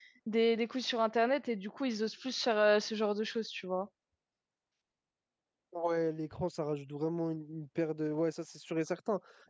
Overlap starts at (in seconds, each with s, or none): none